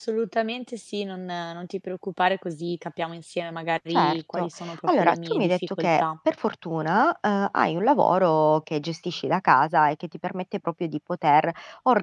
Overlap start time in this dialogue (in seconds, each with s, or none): 3.9 s